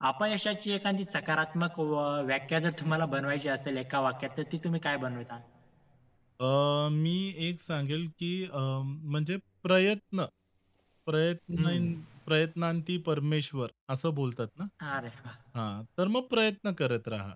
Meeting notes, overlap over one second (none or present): none